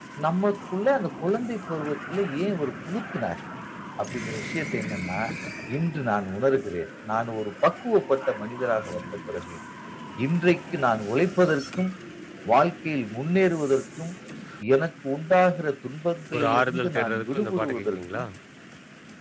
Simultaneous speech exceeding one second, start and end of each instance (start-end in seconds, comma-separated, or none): 16.3-18.2